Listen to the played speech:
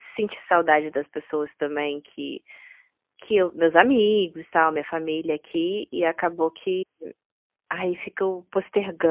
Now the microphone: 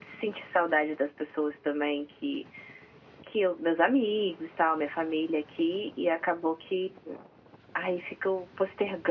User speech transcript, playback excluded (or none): none